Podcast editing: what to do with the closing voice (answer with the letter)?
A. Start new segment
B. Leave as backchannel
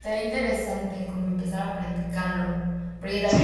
B